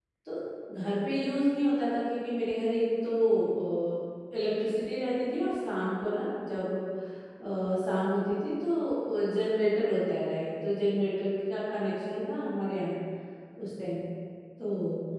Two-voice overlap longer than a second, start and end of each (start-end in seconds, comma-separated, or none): none